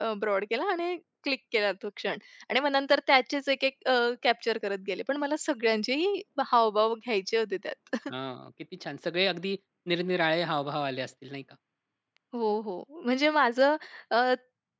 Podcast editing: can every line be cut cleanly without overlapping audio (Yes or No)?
Yes